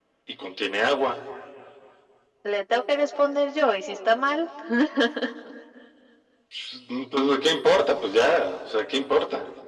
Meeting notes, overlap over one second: none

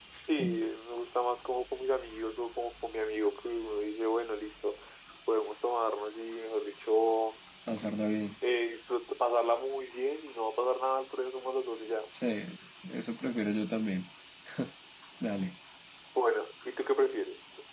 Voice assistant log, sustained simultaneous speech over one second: none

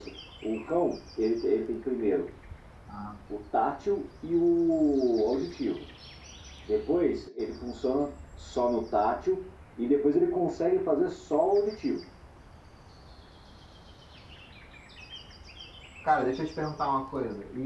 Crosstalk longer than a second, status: none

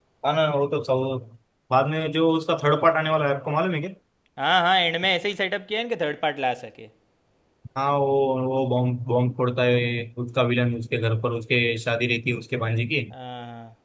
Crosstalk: none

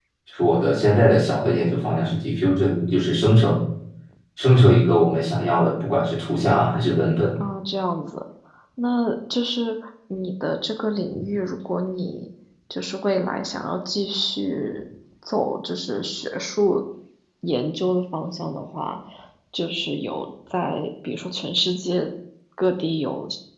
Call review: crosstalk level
none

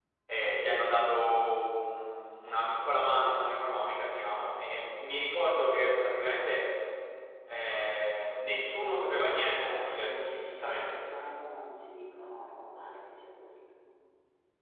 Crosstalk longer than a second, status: present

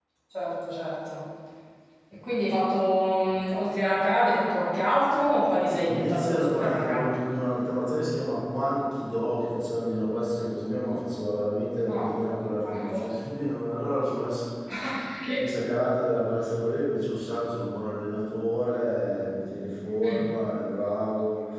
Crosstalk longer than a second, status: present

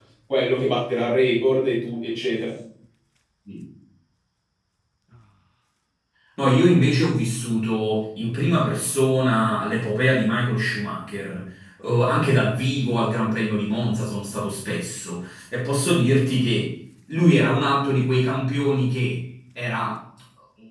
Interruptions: none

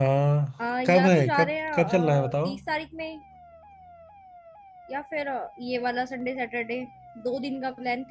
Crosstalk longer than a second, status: present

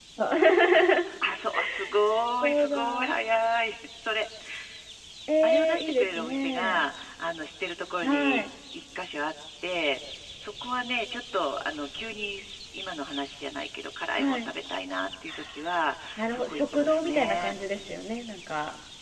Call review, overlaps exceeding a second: present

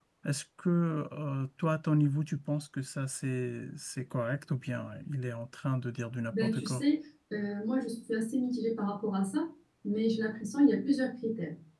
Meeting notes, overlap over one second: none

